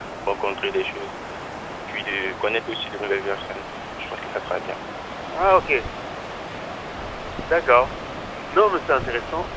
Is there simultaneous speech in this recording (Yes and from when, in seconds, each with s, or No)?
No